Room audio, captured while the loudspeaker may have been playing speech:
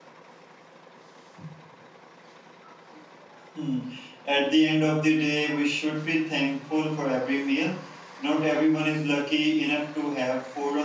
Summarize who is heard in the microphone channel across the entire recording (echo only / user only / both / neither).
user only